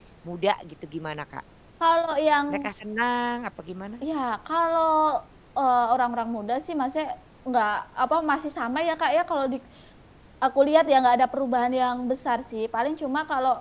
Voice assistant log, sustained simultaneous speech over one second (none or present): none